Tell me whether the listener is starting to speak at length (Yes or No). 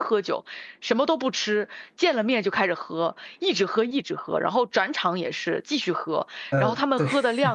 No